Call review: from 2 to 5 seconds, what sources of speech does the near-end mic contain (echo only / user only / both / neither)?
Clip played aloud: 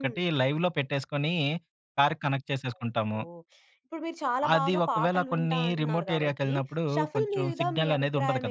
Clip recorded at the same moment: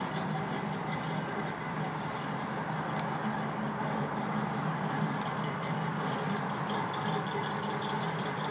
neither